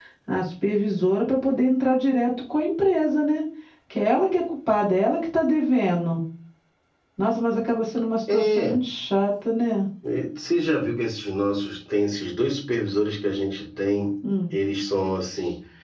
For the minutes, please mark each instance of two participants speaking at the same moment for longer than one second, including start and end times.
none

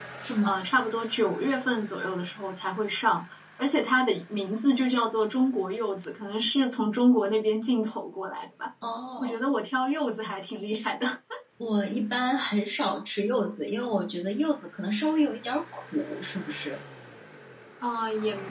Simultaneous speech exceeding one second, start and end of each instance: none

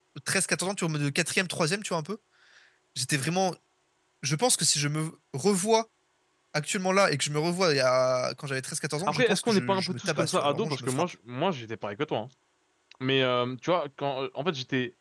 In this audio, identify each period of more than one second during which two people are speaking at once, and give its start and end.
9.1-11.1

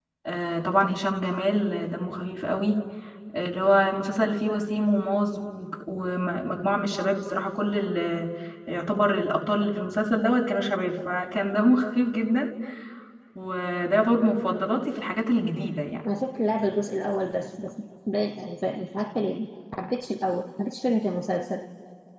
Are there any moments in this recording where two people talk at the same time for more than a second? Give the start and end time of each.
none

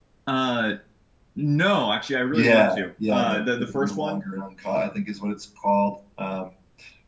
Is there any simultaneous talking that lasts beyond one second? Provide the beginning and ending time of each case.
2.3-4.2

